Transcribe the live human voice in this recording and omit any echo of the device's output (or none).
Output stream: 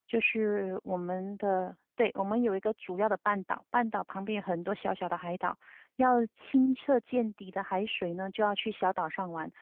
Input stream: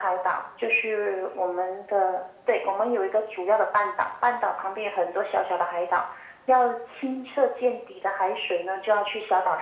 none